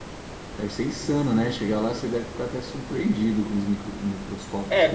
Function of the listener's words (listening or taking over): taking over